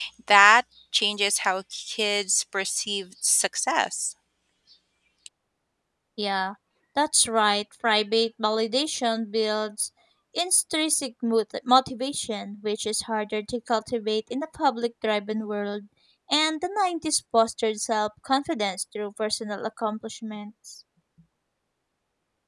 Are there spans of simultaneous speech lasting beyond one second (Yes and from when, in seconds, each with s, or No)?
No